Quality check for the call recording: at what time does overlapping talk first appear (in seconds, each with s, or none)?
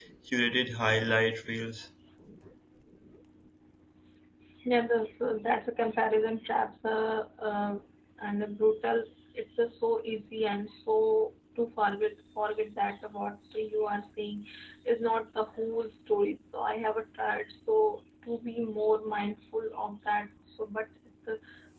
none